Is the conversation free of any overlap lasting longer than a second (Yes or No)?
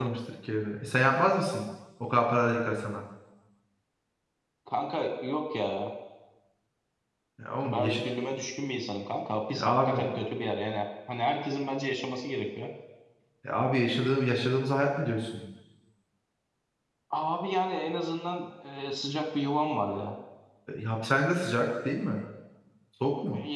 Yes